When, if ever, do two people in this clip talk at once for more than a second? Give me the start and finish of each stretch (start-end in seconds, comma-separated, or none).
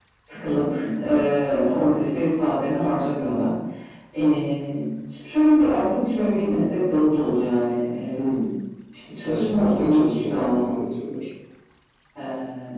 9.2-10.8